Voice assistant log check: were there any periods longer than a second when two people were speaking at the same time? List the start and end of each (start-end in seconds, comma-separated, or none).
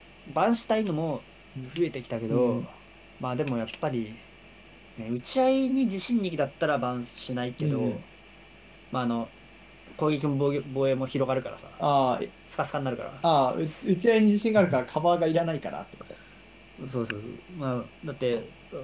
none